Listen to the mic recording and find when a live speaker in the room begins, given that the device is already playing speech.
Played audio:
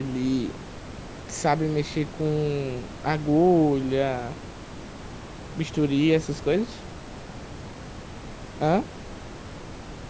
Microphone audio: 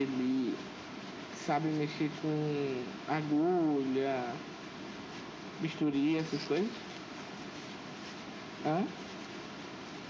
none

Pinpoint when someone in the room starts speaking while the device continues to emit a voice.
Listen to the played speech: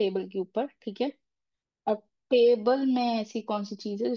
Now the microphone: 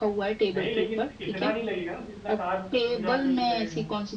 0.5 s

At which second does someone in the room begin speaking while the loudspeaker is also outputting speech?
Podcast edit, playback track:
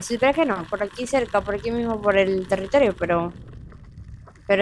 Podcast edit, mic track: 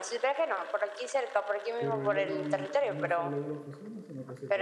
1.8 s

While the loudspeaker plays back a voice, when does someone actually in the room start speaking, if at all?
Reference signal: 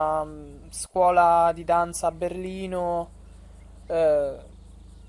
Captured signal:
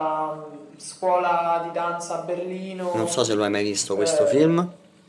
2.9 s

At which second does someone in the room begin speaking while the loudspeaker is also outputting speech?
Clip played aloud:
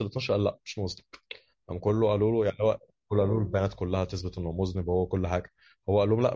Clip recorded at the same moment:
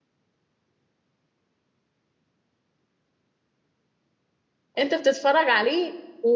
4.8 s

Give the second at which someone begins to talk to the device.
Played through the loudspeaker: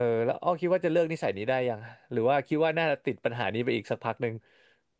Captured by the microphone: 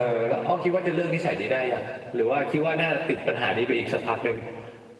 none

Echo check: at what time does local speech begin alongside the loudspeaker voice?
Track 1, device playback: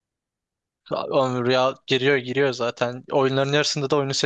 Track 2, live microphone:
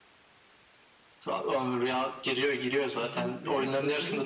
2.9 s

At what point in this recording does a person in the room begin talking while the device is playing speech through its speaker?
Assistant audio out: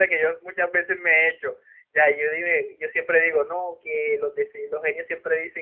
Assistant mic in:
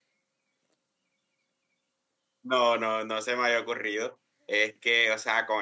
2.4 s

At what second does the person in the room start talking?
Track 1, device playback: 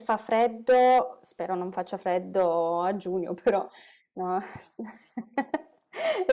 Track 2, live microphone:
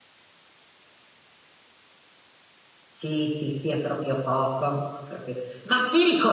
2.9 s

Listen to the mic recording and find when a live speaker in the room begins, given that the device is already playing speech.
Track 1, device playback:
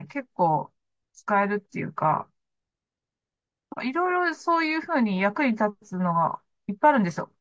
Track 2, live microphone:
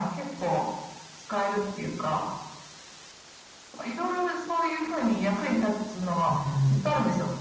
6.3 s

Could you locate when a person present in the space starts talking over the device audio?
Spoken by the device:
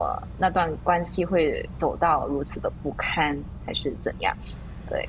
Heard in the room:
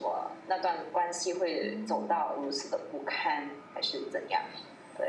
1.6 s

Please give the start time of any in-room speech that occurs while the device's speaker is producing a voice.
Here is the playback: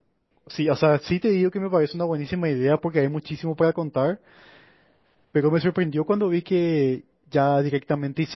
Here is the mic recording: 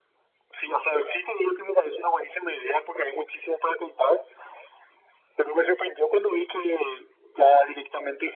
none

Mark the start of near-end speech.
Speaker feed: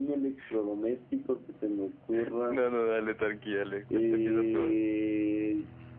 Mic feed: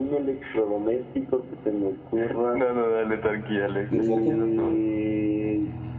4.0 s

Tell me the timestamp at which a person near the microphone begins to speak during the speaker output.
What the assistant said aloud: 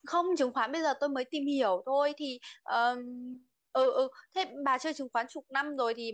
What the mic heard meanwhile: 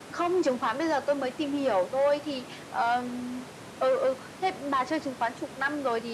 none

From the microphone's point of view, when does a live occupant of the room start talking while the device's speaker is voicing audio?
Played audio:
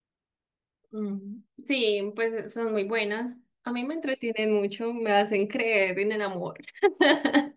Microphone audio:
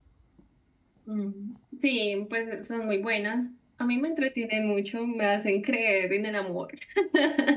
none

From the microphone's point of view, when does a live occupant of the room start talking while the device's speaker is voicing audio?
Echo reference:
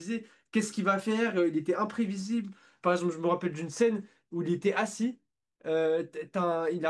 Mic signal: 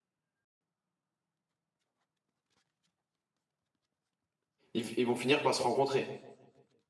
4.7 s

